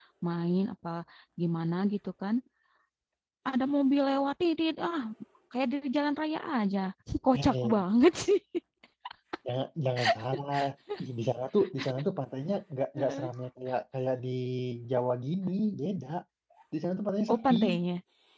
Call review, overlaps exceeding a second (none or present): none